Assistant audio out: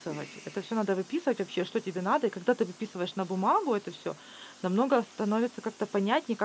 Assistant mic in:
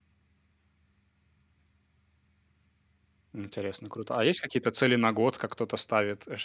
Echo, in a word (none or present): none